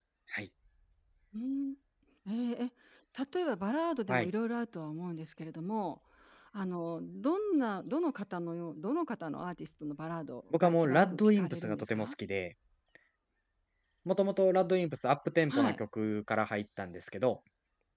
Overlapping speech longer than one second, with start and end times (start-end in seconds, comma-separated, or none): 10.5-12.1